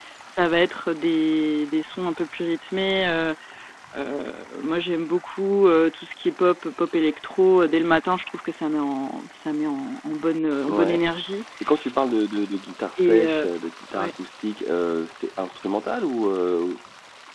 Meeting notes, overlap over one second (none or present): none